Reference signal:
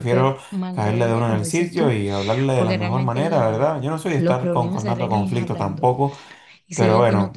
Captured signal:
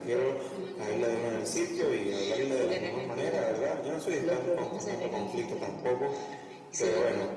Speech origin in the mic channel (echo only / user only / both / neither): echo only